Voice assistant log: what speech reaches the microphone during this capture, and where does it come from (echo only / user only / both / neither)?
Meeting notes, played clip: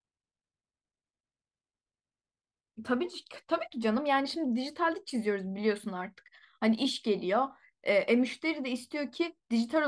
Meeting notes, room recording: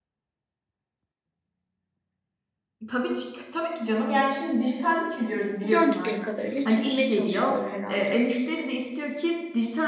both